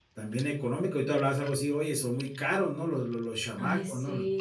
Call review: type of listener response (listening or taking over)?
taking over